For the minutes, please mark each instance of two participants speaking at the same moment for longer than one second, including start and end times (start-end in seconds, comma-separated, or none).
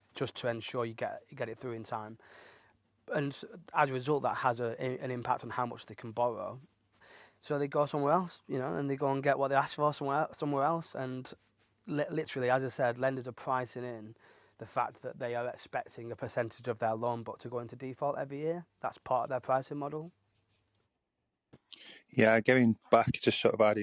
none